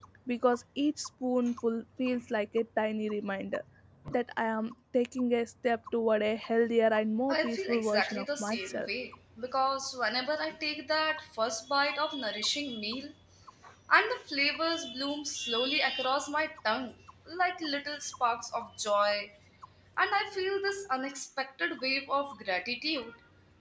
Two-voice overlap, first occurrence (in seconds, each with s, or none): 7.3 s